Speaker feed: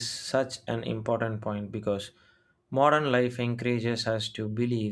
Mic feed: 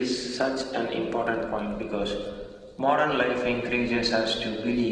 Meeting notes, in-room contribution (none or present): none